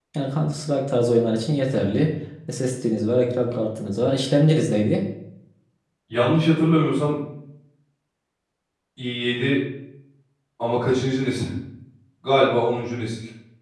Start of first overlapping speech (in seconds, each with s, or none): none